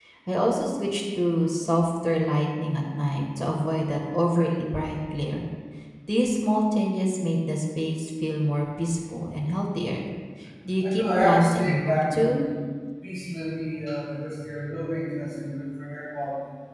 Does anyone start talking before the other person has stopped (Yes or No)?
Yes